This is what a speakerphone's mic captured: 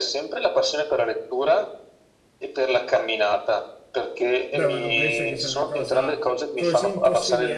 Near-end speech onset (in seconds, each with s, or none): 4.5 s